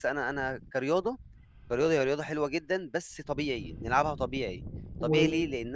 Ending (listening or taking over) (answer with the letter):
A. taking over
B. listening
B